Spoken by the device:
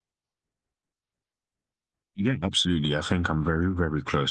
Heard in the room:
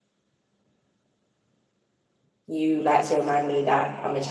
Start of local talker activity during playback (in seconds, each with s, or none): 2.5 s